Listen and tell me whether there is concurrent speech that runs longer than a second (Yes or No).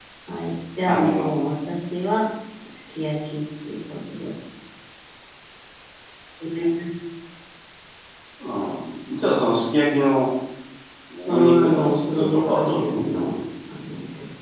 Yes